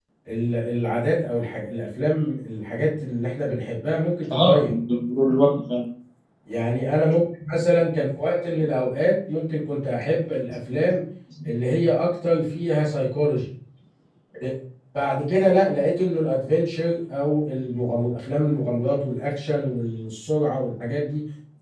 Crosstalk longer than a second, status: none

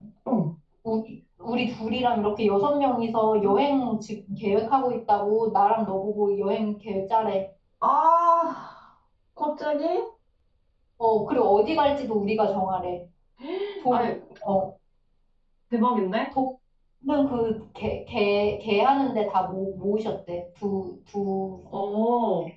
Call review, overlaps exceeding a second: none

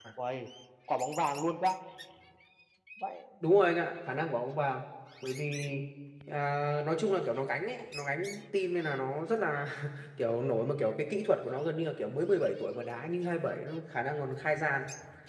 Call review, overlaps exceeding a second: none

